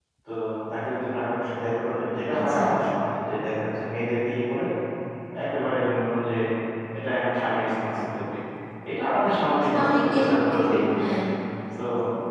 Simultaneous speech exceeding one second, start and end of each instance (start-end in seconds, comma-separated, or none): 9.7-11.0